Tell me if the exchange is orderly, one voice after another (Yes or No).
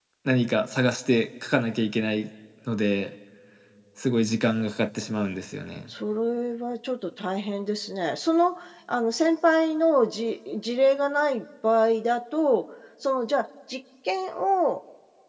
Yes